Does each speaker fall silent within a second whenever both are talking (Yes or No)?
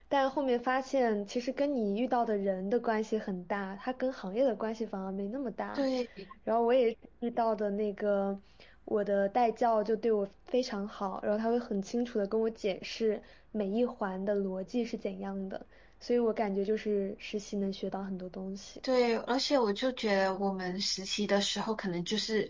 Yes